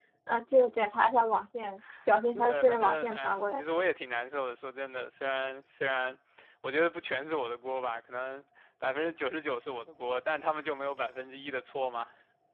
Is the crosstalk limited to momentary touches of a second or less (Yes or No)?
No